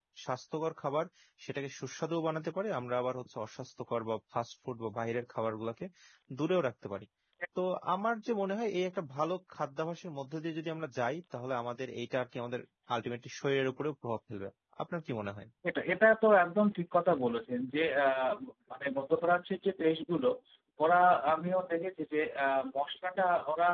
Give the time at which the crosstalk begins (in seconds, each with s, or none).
none